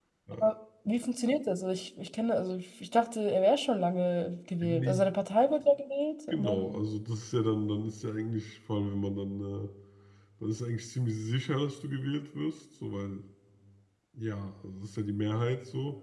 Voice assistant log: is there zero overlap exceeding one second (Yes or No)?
Yes